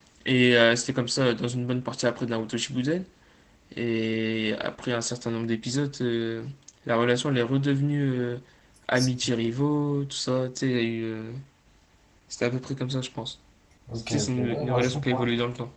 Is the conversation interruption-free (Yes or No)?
No